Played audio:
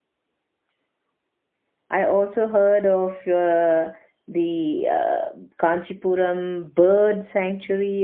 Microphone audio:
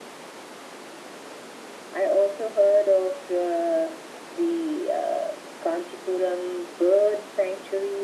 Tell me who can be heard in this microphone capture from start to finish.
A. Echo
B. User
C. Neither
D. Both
A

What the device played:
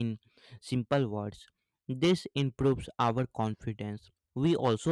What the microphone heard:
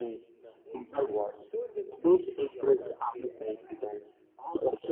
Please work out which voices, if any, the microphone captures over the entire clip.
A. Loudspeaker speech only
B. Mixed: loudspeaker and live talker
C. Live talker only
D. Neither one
B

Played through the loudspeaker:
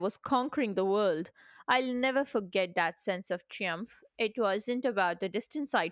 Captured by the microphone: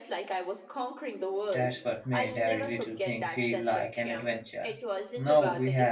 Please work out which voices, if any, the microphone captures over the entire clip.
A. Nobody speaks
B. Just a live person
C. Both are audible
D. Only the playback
C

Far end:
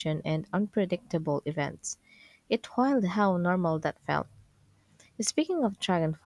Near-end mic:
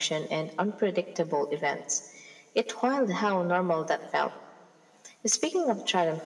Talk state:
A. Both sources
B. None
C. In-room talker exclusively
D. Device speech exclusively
D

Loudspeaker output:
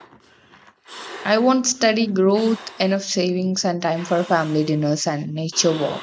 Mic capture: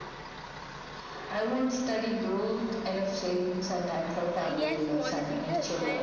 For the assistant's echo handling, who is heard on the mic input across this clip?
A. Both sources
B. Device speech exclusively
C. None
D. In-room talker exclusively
A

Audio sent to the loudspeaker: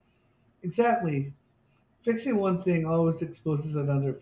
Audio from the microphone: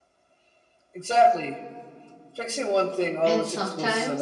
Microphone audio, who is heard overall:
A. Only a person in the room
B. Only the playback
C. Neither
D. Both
D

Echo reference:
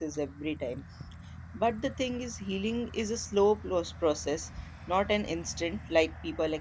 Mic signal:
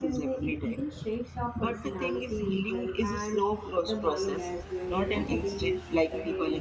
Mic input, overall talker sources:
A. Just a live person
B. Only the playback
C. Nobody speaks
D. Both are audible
D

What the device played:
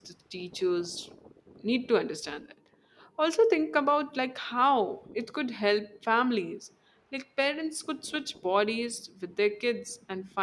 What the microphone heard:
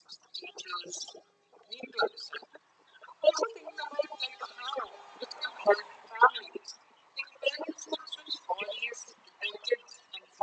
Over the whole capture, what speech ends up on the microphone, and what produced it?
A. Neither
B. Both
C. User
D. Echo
D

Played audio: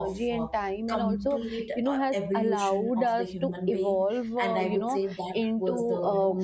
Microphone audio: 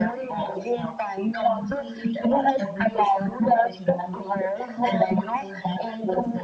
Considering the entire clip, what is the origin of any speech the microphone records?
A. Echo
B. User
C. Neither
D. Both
A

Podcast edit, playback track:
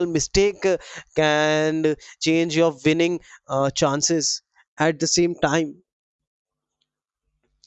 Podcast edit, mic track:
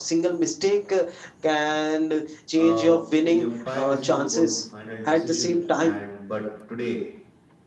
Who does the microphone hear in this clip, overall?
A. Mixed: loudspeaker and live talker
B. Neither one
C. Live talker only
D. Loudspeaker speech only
A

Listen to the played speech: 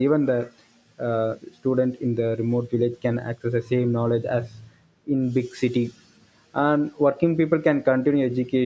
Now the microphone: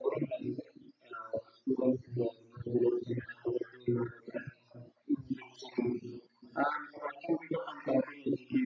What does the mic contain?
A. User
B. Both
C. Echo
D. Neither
C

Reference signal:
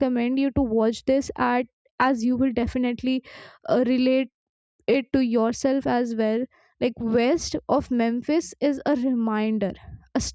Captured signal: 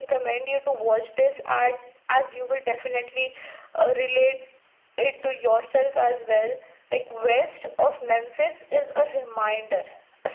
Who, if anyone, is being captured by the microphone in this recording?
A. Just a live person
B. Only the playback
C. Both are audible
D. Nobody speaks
B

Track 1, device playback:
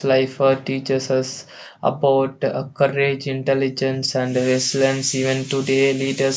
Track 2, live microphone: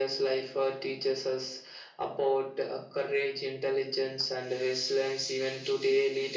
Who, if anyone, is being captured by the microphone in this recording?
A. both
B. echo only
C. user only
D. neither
B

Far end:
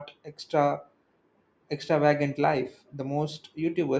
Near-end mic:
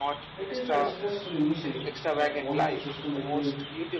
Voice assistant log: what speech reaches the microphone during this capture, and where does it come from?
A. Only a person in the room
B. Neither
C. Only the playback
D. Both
D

